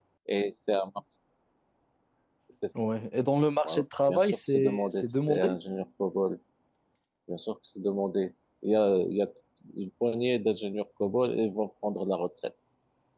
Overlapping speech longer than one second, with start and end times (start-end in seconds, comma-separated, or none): 3.6-5.6